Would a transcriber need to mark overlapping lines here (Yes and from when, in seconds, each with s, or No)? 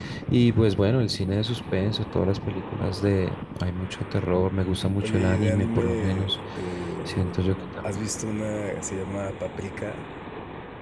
Yes, from 5.0 s